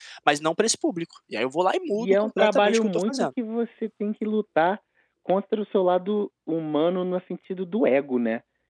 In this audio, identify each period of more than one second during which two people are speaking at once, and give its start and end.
1.9-3.1

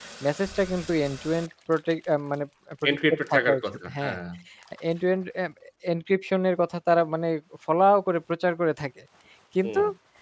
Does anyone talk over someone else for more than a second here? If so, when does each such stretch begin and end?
2.9-4.2

